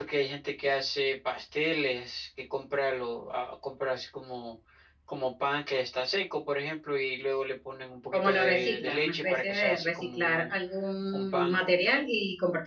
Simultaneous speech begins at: 8 s

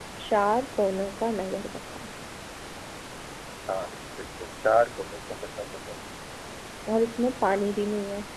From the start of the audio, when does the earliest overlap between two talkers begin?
none

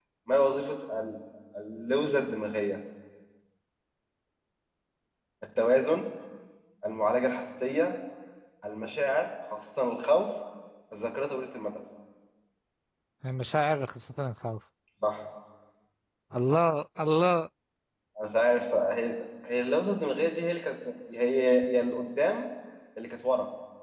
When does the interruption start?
none

